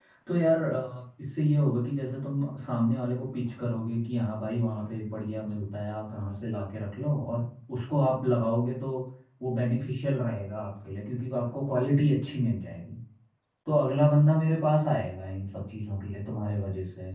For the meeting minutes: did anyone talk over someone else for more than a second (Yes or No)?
No